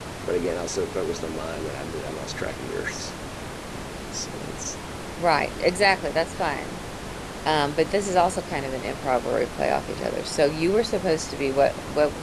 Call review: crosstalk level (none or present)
none